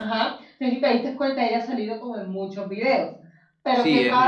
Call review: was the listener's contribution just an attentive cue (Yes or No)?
Yes